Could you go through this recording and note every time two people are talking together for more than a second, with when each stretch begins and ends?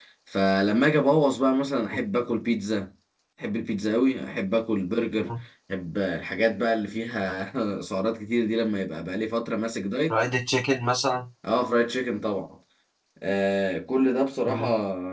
none

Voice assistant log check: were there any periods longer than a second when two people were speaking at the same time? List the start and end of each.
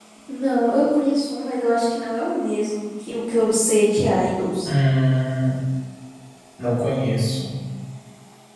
none

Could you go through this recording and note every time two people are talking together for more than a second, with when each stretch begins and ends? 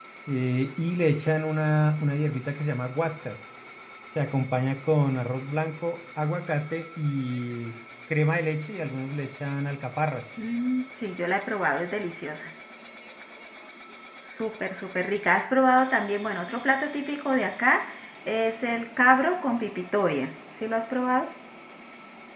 none

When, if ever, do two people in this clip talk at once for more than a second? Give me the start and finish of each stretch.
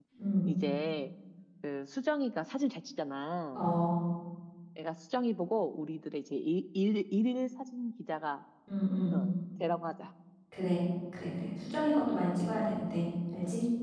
none

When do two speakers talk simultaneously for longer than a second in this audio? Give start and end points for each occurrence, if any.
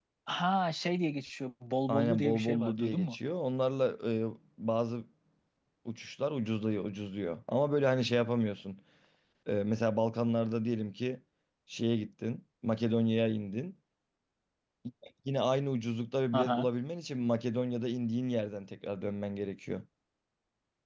1.9-3.2

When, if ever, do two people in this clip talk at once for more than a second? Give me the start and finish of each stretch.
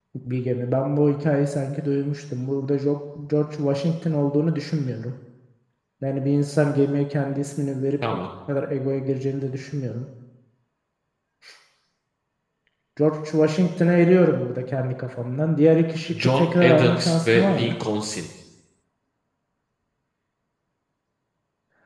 16.1-17.7

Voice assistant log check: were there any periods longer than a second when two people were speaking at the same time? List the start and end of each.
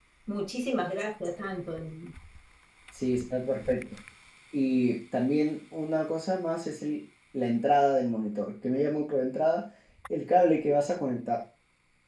none

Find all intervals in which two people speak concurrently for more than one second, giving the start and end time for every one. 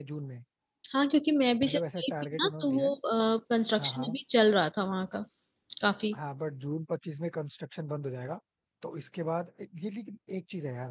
1.6-2.9

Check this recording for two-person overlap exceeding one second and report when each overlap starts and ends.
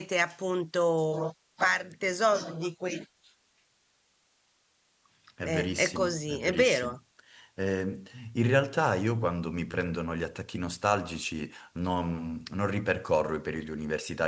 5.4-6.9

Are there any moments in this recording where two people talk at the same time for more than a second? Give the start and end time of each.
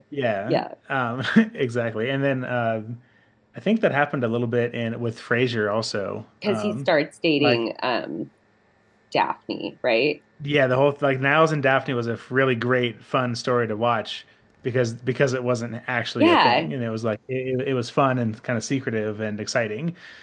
none

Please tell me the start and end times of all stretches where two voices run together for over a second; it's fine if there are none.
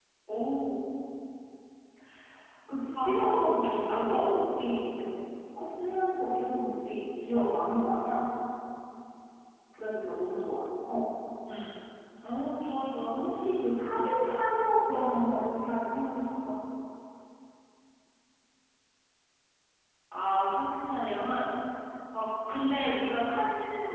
3.0-4.2

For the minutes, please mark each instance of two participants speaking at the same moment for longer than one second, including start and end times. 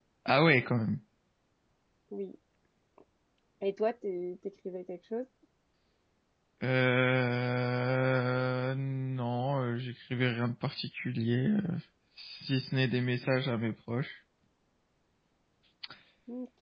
none

